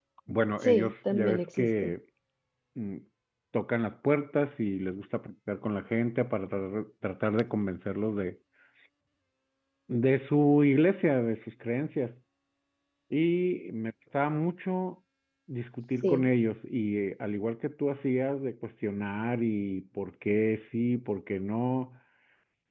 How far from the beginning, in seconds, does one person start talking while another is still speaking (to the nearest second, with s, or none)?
1 s